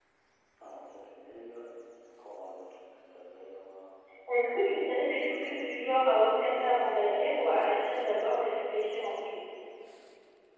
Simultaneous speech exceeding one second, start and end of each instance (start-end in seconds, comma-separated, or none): 4.6-7.3